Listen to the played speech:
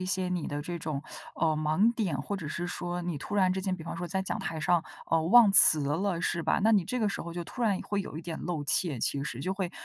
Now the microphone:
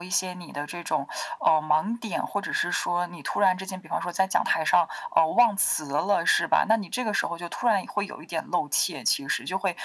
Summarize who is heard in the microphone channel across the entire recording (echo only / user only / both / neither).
echo only